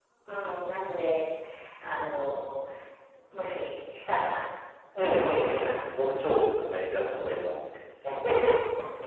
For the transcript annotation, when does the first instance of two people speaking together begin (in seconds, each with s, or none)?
5.0 s